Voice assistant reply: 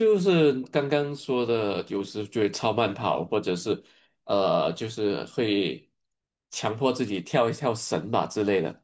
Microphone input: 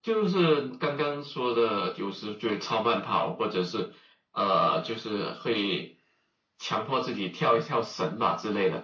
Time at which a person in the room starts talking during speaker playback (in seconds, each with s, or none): none